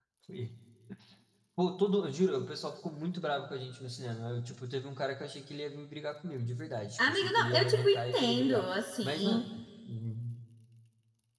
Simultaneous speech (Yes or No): Yes